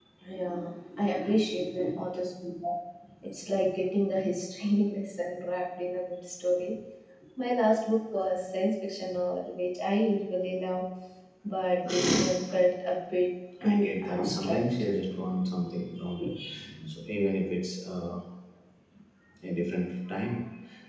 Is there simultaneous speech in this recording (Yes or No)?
Yes